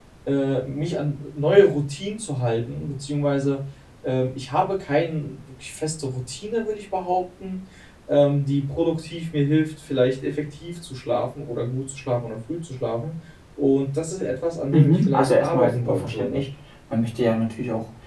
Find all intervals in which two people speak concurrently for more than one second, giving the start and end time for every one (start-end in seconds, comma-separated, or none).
14.7-16.4